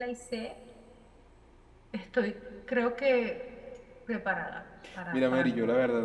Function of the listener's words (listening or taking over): taking over